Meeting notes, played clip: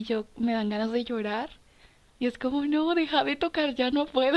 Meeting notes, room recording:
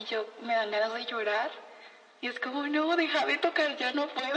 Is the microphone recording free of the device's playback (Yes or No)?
No